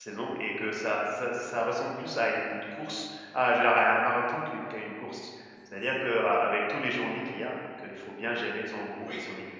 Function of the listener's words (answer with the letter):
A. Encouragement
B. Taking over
B